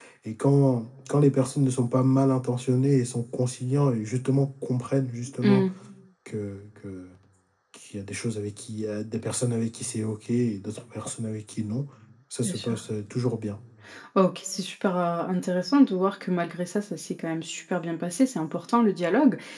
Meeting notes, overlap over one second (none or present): none